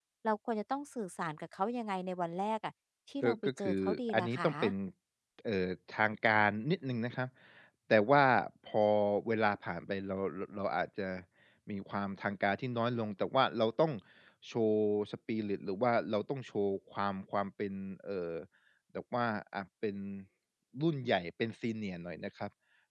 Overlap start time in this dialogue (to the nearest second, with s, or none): 3 s